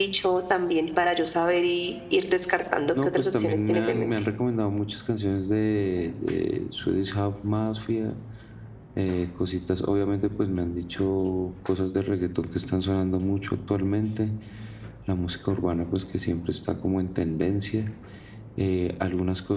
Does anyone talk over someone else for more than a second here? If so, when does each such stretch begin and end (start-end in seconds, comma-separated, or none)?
2.9-4.1